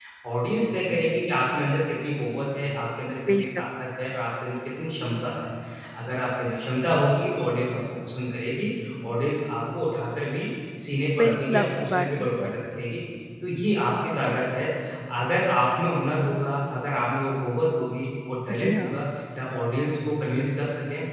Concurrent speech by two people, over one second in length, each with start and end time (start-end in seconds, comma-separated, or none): 11.2-12.6